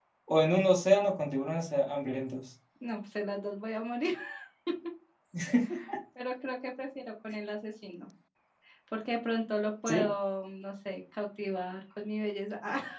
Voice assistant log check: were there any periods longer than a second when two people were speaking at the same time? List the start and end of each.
none

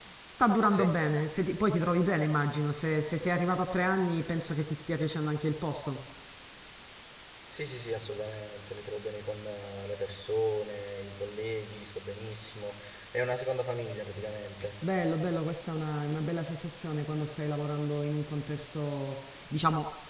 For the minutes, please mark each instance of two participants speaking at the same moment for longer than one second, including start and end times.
none

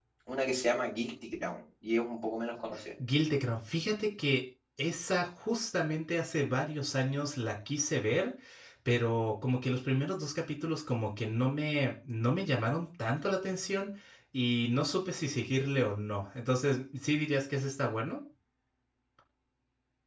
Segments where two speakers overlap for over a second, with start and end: none

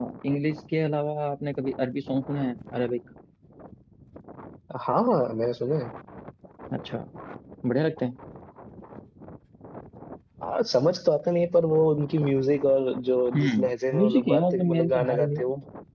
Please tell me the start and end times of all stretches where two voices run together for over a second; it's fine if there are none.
13.4-15.4

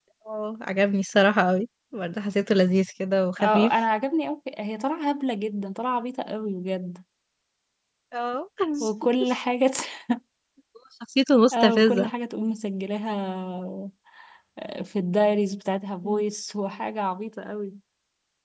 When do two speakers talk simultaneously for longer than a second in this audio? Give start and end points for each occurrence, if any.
none

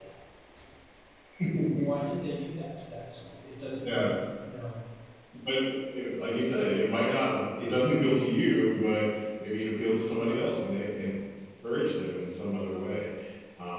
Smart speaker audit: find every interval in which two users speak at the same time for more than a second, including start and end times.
none

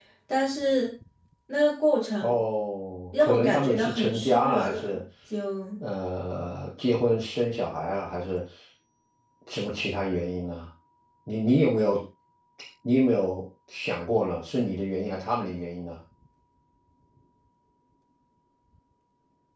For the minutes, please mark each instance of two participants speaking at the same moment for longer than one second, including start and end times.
3.2-5.0

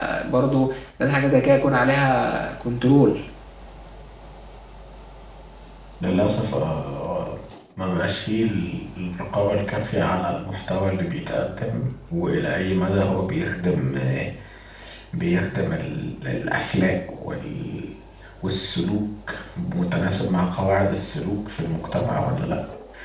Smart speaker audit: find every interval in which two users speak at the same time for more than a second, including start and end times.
none

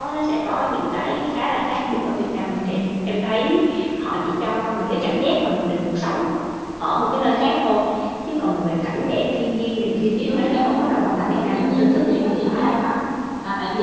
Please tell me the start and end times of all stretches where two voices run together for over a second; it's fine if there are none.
10.2-12.8

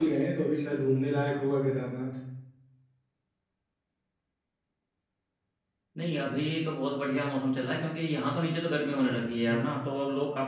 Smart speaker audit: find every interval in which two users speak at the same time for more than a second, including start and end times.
none

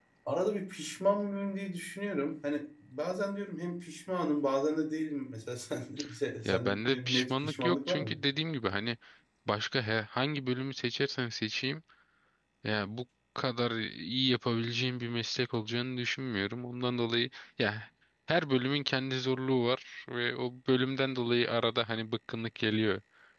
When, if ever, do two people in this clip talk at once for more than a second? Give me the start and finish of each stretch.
6.4-8.1

